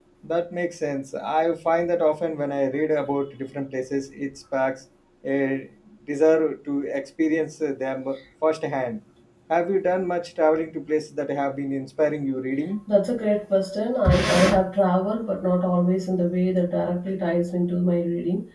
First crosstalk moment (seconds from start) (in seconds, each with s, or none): none